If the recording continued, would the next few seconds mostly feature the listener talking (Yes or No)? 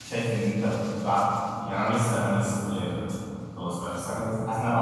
No